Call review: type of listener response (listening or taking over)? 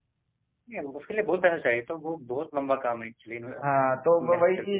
taking over